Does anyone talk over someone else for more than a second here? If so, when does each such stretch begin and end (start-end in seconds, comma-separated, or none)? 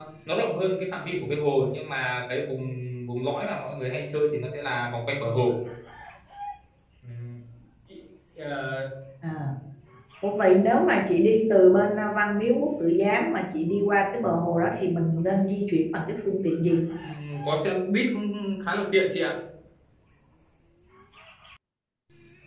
none